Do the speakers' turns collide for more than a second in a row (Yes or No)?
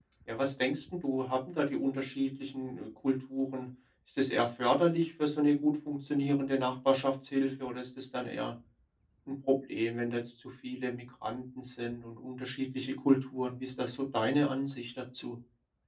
No